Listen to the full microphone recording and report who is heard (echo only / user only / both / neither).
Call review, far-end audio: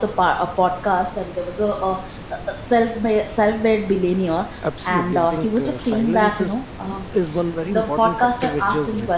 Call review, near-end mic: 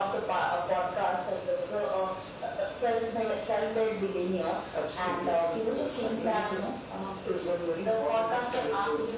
echo only